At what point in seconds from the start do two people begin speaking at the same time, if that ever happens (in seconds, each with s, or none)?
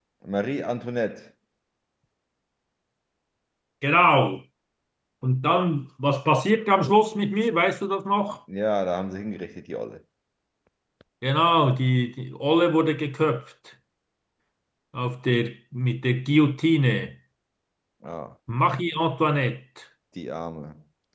none